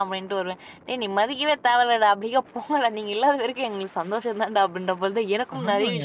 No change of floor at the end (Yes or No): No